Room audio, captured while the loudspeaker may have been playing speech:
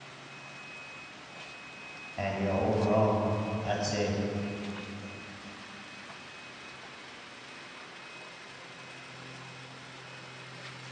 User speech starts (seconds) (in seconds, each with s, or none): 2.1 s